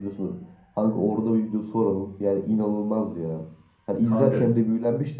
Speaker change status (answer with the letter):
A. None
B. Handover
A